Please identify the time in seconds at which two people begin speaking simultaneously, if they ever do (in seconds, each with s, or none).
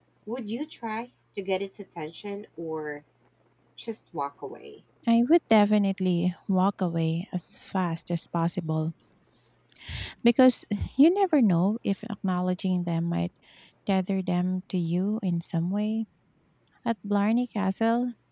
none